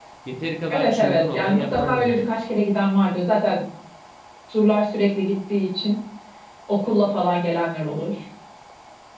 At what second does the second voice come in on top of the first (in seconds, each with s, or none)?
0.7 s